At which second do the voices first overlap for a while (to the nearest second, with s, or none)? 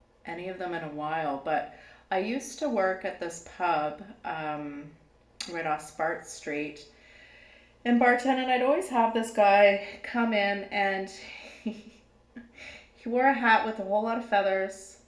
none